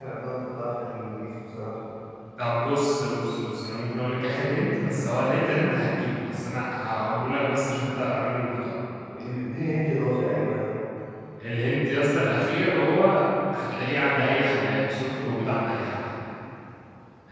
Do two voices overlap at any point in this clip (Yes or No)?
No